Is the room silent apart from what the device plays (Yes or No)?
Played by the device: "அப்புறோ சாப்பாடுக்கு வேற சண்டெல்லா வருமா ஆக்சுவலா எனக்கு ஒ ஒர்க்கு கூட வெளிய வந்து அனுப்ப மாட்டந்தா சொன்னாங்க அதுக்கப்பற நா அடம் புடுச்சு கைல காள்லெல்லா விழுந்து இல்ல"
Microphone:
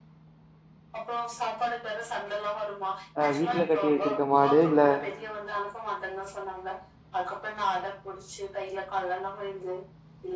No